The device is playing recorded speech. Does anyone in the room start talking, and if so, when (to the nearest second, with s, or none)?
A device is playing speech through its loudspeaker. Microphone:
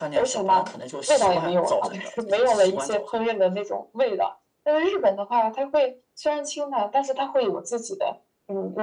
none